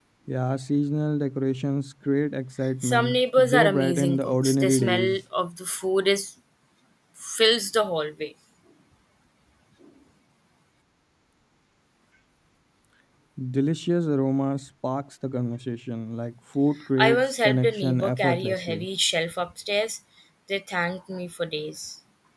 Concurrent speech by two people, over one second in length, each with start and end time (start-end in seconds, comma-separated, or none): 2.8-5.2, 17.0-18.9